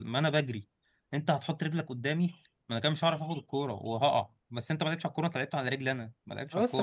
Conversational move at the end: taking over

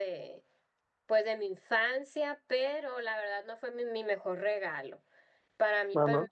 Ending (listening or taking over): listening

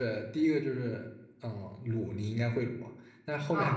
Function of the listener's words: listening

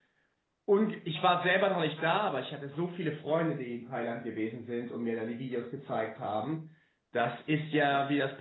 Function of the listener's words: listening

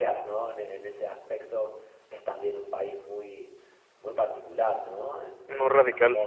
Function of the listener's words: listening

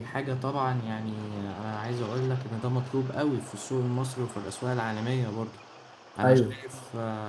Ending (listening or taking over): listening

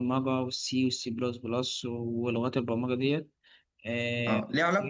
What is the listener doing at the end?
taking over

